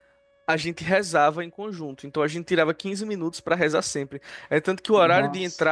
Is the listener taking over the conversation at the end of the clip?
No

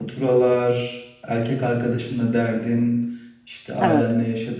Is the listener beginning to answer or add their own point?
No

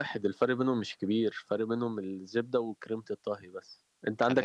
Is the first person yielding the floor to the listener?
No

